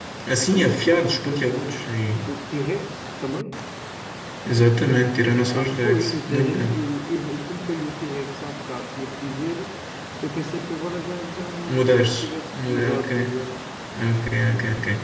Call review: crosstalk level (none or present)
present